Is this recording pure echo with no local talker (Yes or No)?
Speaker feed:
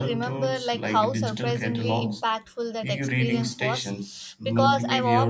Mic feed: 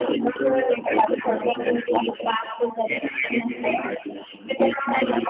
Yes